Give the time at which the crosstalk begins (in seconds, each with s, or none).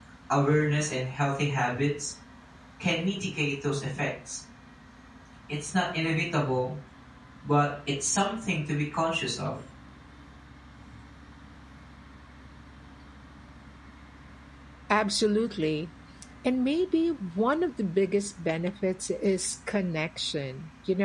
none